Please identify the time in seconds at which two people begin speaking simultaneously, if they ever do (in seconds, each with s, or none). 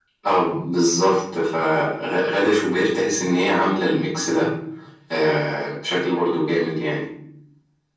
none